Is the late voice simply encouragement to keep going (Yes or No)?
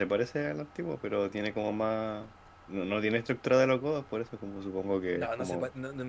No